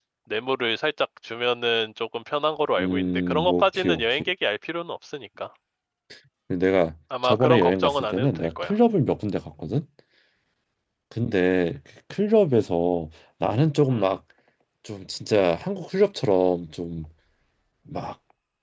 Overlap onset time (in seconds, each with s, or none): 2.8 s